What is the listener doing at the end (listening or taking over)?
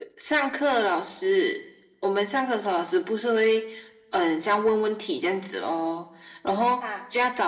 listening